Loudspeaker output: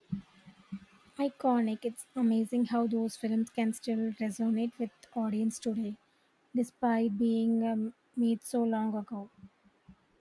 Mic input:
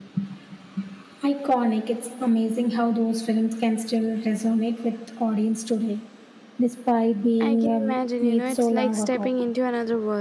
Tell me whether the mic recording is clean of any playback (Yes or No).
No